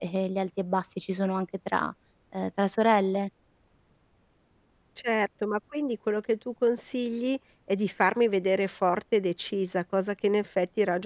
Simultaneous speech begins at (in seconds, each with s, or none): none